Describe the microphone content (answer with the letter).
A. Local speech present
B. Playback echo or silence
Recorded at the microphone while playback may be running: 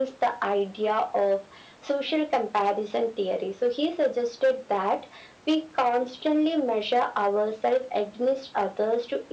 B